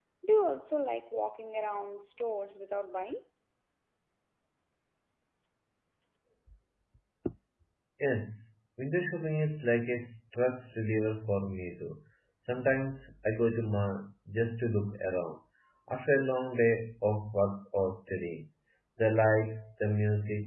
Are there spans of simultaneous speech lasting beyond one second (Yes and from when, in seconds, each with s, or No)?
No